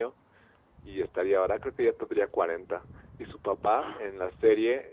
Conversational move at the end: listening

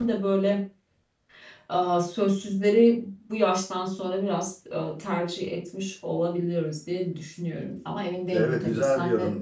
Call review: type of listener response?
taking over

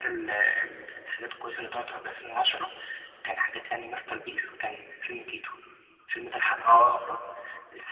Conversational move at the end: listening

